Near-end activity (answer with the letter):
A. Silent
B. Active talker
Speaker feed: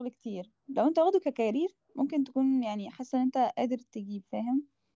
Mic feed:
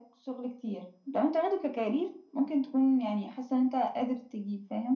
A